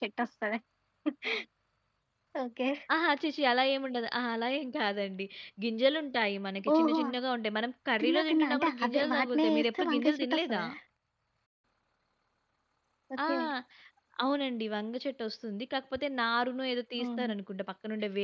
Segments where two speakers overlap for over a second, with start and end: 8.0-10.6

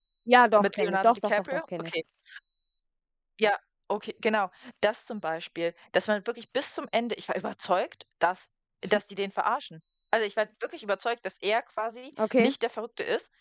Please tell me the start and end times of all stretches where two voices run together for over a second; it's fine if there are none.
0.6-1.9

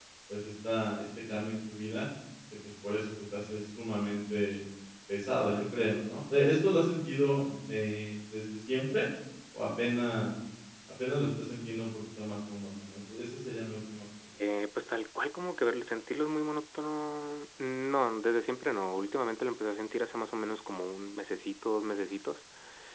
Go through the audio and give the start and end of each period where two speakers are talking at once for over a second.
none

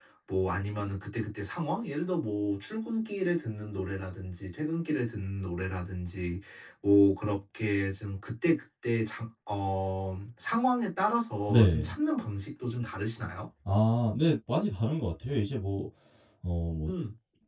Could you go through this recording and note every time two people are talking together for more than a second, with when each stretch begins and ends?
none

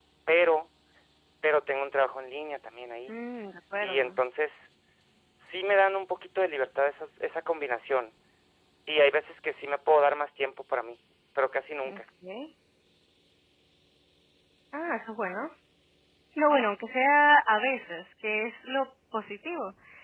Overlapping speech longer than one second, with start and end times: none

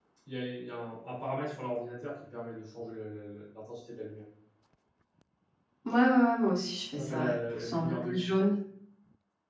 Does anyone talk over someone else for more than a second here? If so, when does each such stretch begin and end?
7.0-8.3

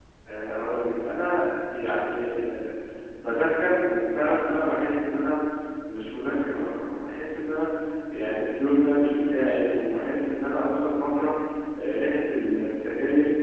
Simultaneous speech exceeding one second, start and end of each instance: none

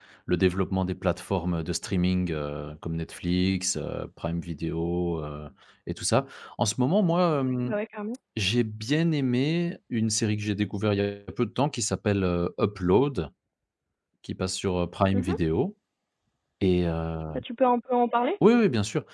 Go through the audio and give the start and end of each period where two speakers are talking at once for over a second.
none

